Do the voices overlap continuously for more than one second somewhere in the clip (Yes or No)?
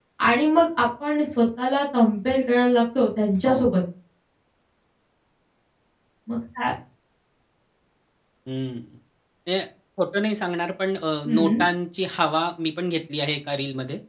No